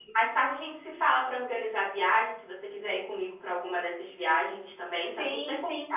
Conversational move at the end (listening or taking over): taking over